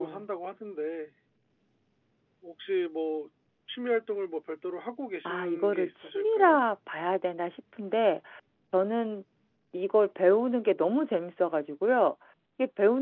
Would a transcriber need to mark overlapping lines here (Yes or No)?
Yes